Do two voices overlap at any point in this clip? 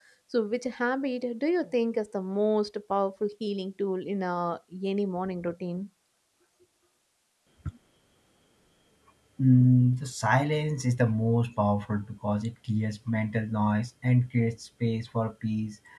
No

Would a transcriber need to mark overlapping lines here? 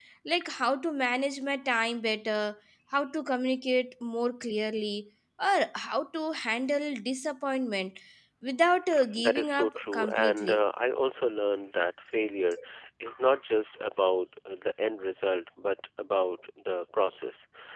Yes, from 9.2 s

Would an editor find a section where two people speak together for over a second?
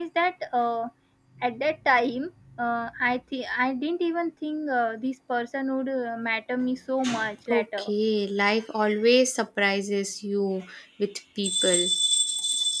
No

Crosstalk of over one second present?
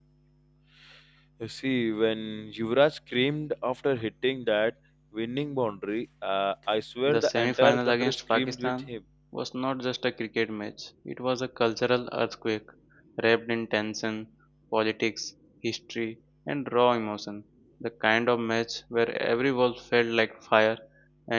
Yes, from 7.1 s

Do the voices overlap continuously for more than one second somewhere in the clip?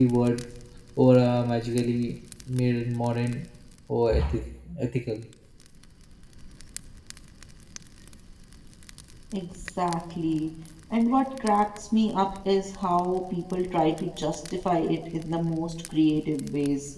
No

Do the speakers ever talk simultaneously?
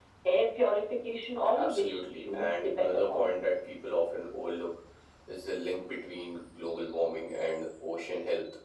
Yes, from 1.5 s

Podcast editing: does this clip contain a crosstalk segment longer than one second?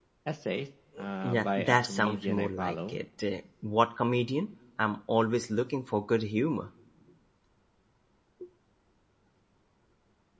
Yes, from 1.2 s

